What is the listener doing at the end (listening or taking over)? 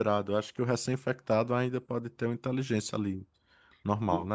taking over